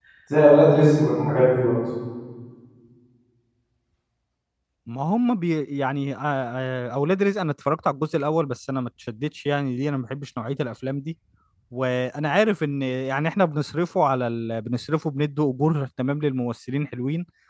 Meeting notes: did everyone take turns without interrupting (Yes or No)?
Yes